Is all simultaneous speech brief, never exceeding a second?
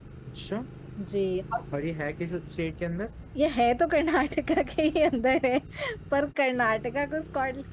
Yes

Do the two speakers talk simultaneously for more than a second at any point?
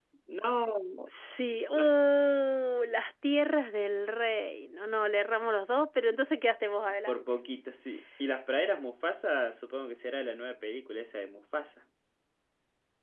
No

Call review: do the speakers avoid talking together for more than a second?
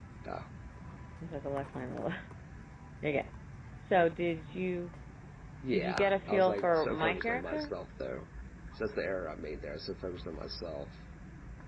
No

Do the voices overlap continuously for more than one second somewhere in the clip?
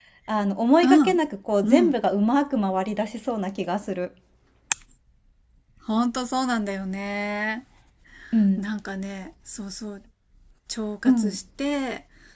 No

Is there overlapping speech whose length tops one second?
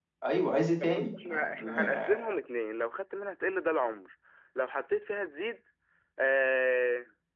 Yes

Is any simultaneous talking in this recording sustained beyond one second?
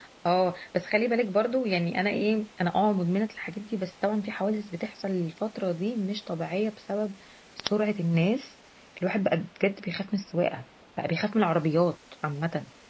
No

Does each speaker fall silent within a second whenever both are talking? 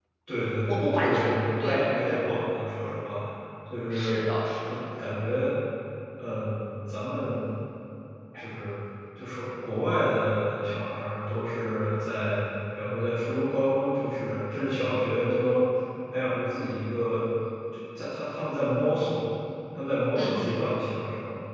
No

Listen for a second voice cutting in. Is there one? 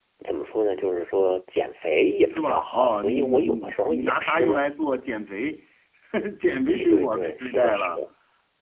Yes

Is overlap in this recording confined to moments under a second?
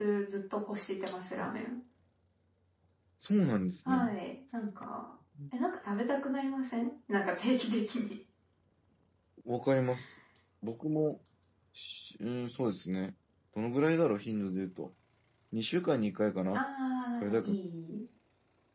Yes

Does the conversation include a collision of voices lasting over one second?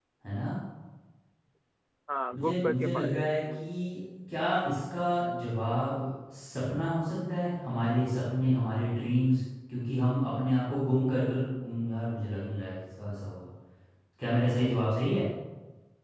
Yes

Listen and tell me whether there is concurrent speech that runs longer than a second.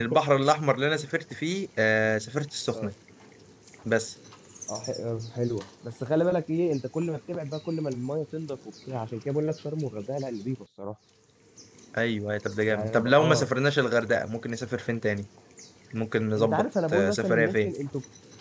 Yes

